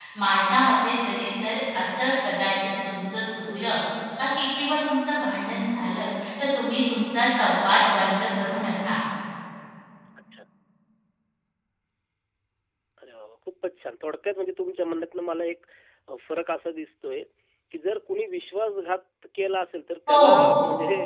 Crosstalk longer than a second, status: none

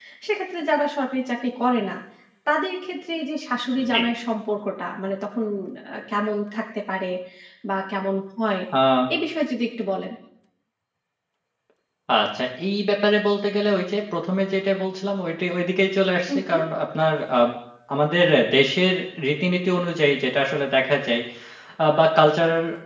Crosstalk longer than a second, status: none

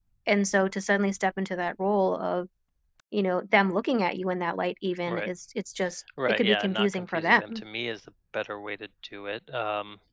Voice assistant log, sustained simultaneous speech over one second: present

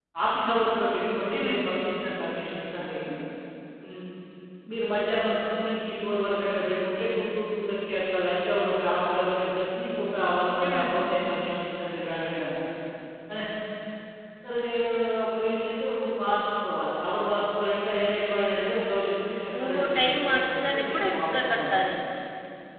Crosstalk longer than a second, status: present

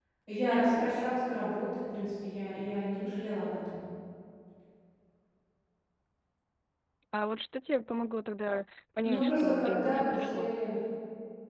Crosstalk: present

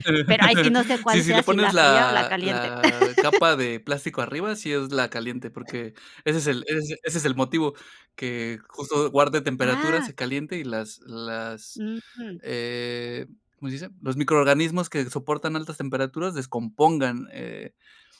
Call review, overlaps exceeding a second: present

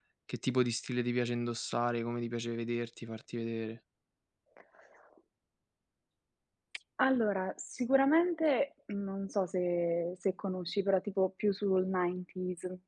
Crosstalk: none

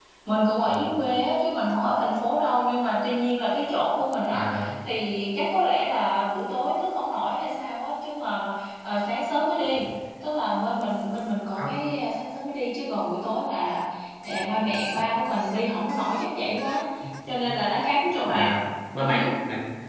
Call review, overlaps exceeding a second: none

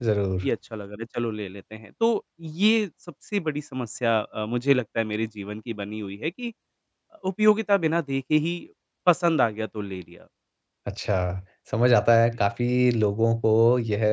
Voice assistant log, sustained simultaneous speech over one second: none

